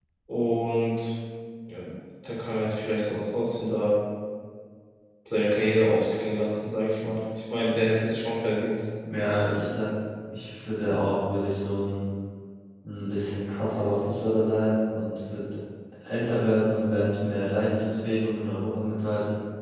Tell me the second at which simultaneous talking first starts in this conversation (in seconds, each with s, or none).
none